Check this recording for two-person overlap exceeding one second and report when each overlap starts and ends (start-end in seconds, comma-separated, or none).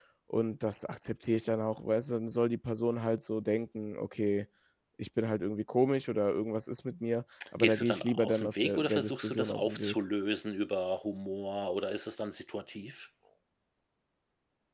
7.6-10.0